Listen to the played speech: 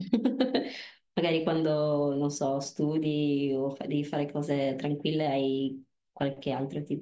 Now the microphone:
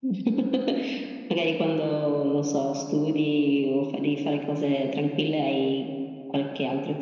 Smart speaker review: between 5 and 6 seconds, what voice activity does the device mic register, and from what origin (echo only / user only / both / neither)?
echo only